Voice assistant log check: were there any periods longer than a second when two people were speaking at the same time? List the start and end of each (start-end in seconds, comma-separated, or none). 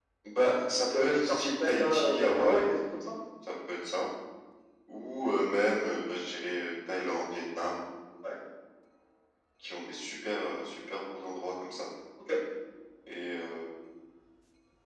0.7-2.6